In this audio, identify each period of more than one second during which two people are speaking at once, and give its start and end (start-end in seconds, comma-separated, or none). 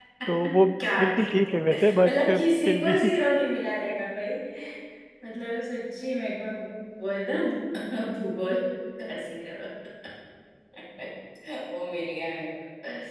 1.0-2.9